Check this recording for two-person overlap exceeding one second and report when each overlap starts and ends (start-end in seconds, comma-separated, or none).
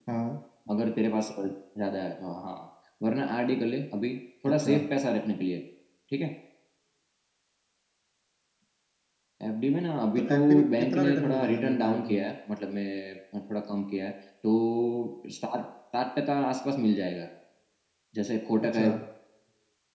10.2-12.3